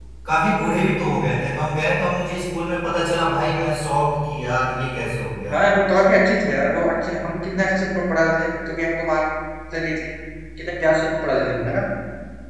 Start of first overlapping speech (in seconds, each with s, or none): none